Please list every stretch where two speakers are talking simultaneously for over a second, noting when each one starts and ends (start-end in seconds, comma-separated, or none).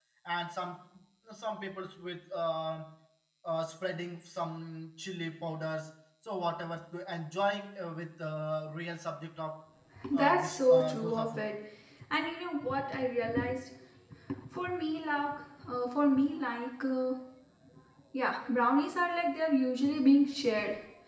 10.1-11.4